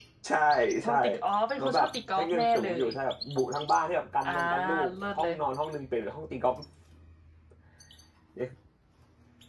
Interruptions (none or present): present